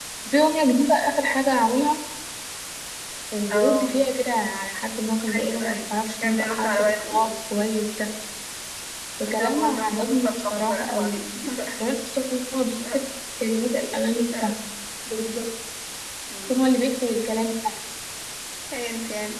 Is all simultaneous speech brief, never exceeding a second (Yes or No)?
No